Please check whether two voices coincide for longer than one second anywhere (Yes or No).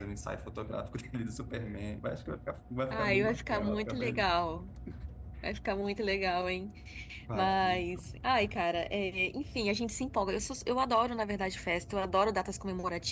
Yes